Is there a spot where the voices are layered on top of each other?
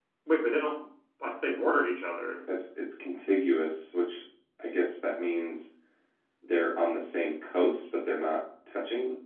No

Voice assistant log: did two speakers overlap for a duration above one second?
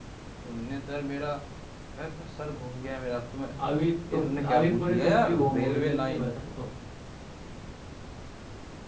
Yes, from 4.1 s

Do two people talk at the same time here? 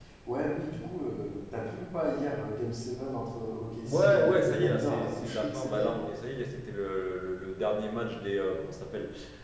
Yes, from 3.9 s

